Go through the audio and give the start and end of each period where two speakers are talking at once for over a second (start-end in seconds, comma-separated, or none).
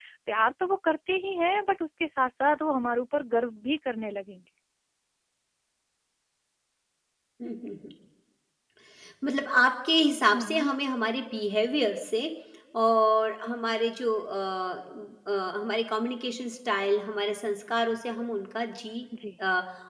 none